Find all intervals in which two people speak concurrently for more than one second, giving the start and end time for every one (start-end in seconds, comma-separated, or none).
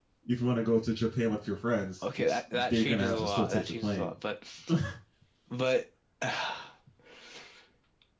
2.2-4.2